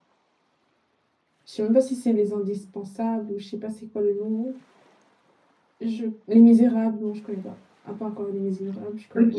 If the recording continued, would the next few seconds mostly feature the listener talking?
Yes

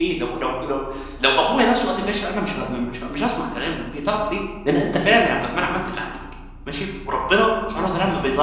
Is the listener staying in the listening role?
Yes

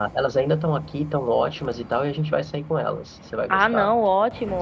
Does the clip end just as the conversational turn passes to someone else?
Yes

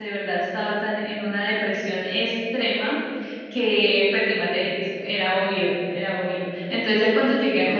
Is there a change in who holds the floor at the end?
No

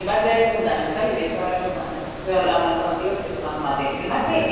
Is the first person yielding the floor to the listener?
No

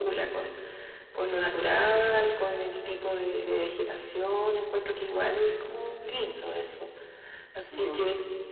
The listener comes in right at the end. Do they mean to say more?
No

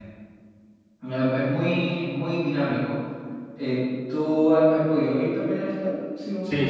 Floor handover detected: Yes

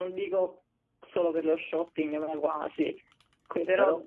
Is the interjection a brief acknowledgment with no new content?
Yes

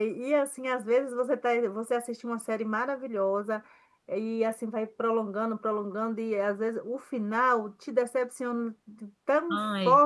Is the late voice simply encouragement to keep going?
Yes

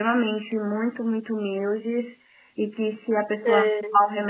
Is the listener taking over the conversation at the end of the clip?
No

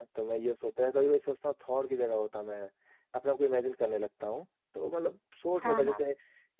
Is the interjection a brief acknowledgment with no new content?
Yes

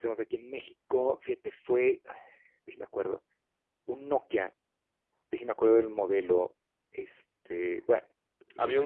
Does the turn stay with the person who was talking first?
No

